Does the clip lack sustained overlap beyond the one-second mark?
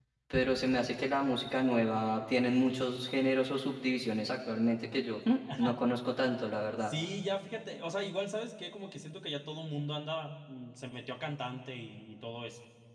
Yes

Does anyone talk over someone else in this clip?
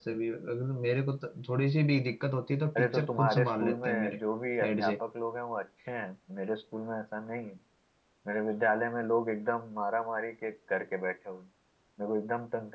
Yes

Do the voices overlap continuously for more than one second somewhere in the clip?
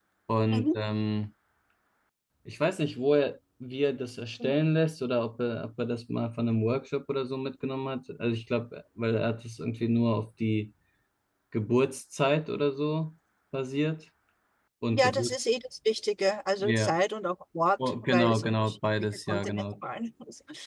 Yes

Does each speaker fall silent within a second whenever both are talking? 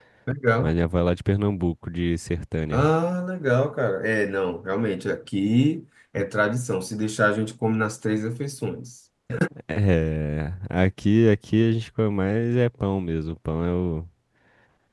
Yes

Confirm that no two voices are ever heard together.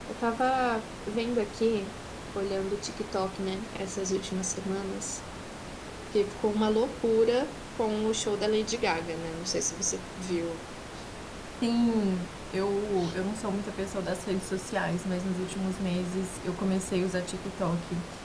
Yes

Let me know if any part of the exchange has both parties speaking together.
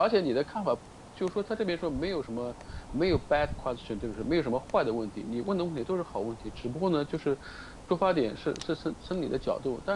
No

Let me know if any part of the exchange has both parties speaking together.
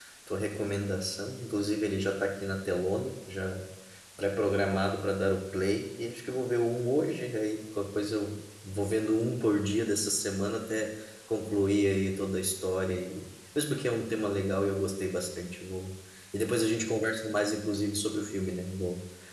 No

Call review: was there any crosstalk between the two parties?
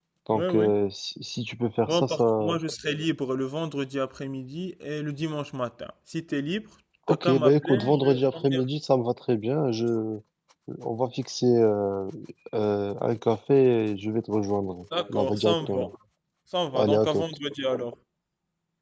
Yes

